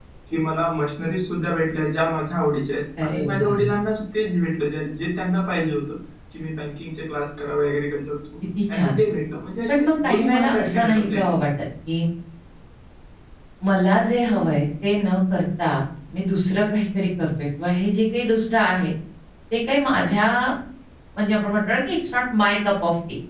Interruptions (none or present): present